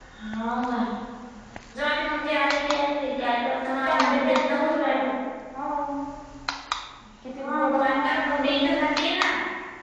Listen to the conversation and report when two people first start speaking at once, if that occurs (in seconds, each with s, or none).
3.9 s